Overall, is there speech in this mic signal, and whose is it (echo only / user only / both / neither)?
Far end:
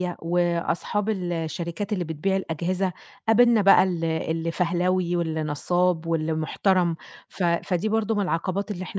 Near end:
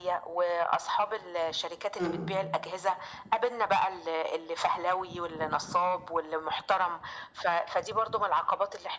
both